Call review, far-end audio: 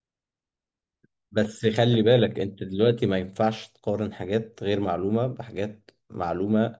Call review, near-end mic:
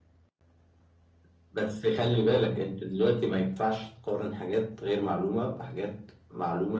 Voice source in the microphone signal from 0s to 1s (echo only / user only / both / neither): neither